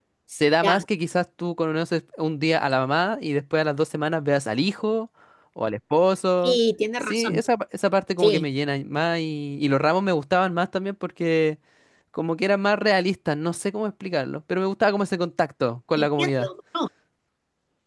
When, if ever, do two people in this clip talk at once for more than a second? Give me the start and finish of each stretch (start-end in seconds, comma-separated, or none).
none